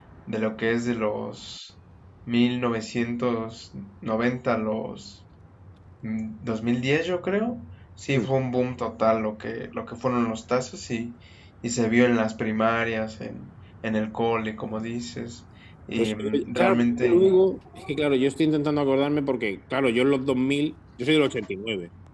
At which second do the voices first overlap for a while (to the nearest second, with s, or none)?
16 s